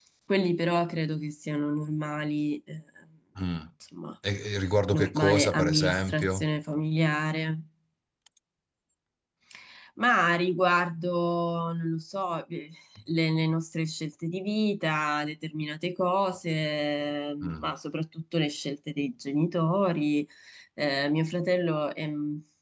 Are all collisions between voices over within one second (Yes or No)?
No